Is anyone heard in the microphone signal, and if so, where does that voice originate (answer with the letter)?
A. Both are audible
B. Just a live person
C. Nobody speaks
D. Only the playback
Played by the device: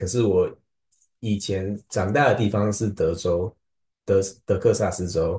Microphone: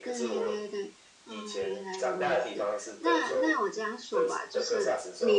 A